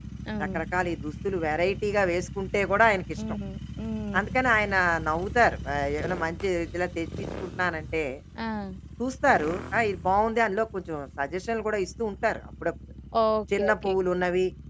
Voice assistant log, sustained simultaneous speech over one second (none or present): none